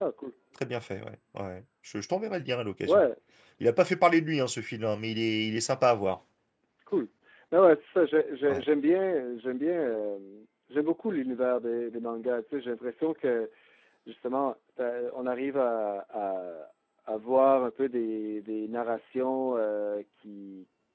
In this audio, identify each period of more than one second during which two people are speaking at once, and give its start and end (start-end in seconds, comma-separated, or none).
none